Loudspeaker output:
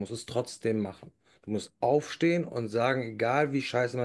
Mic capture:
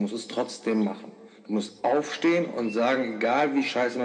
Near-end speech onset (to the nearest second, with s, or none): none